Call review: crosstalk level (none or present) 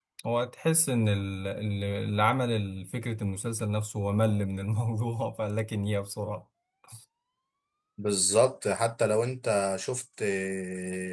none